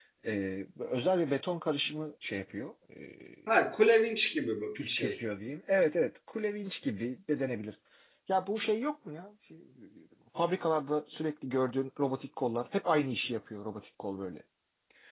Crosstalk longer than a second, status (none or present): none